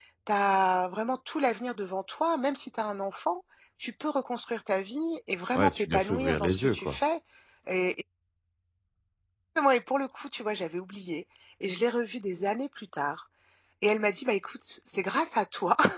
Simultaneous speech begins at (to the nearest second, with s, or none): 6 s